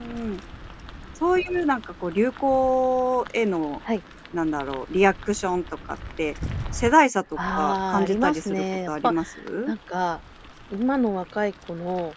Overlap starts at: 7.3 s

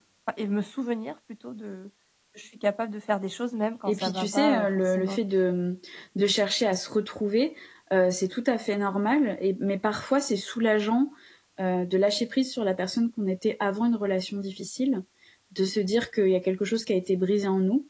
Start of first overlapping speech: 3.9 s

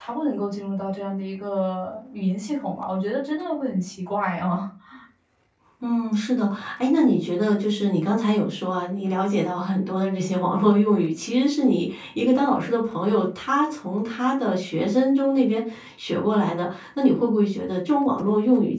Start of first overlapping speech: none

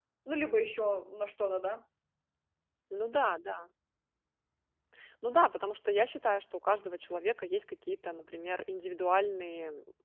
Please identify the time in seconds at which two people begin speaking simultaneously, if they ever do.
none

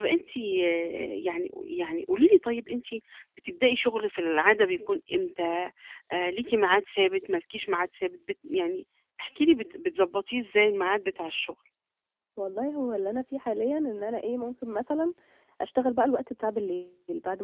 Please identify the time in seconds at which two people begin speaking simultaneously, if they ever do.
none

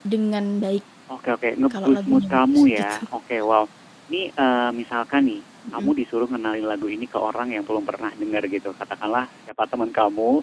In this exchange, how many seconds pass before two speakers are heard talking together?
1.7 s

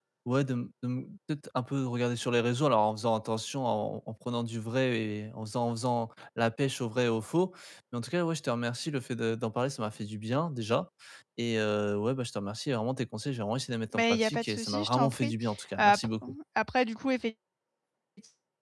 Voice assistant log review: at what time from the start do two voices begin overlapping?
13.9 s

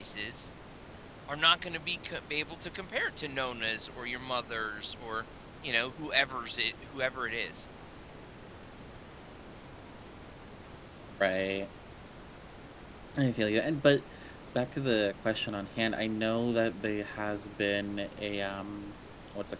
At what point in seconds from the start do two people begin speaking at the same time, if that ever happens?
none

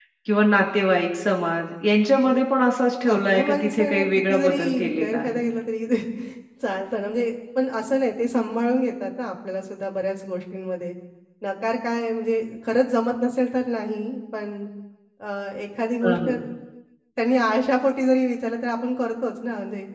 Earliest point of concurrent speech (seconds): 3.1 s

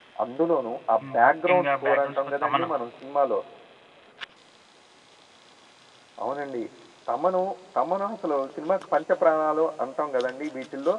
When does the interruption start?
1.0 s

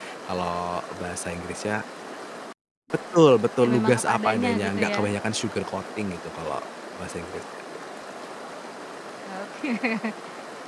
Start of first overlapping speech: 3.6 s

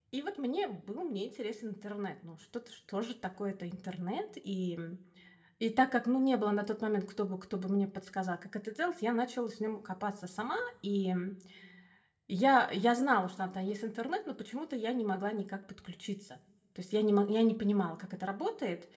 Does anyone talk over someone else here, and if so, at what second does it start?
none

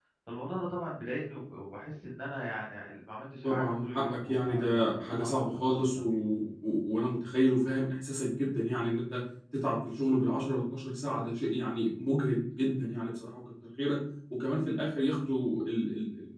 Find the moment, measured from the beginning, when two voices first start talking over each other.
3.4 s

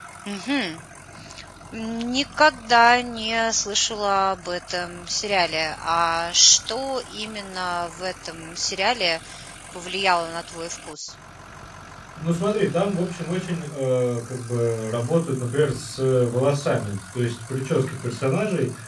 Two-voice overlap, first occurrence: none

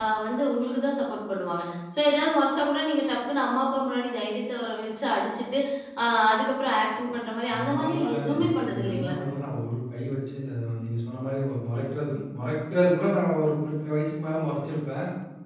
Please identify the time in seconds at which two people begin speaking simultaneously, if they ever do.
7.5 s

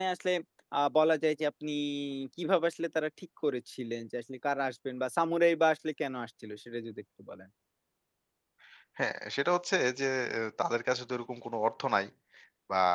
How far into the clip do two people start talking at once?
none

